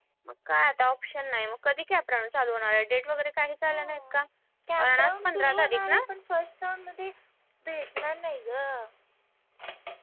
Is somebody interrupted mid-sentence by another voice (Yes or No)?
Yes